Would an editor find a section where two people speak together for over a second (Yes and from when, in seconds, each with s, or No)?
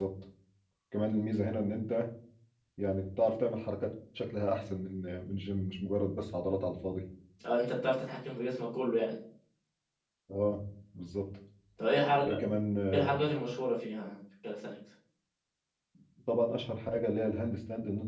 No